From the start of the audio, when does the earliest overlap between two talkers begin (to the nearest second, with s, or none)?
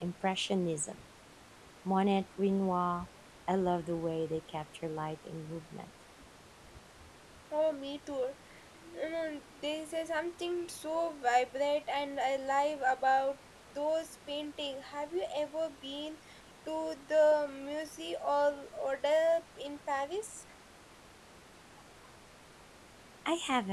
none